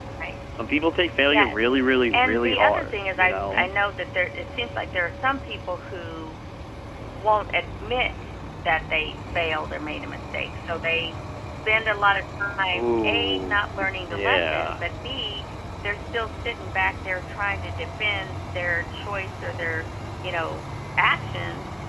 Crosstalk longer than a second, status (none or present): present